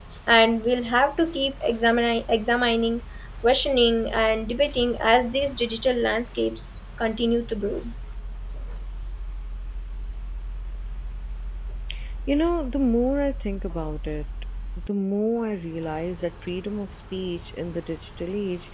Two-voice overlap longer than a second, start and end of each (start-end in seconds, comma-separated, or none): none